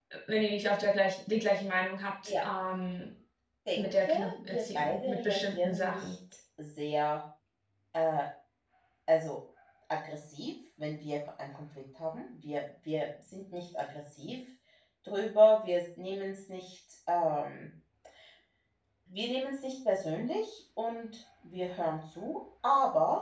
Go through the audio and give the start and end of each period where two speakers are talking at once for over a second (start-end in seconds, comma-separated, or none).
3.8-6.1